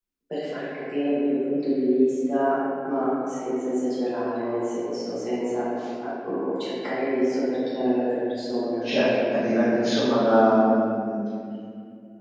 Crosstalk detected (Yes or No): No